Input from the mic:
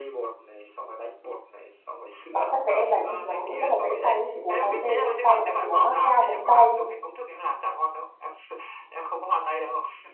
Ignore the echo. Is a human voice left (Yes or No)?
Yes